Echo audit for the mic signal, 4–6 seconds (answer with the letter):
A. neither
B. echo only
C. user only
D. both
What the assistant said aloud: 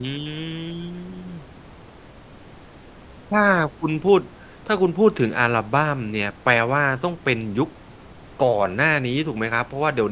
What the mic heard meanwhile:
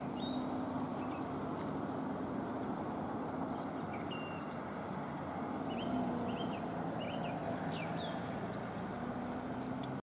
A